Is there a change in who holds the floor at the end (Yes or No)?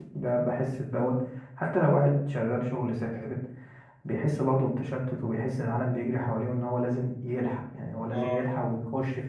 No